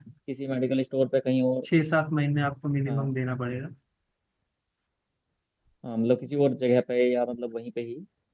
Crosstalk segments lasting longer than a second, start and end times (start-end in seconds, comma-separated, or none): none